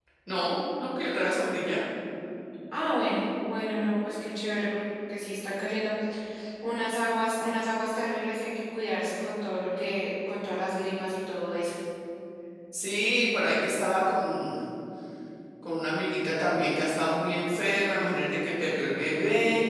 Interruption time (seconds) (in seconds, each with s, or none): none